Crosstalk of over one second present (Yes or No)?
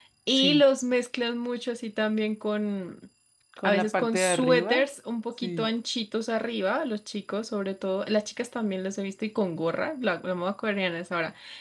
Yes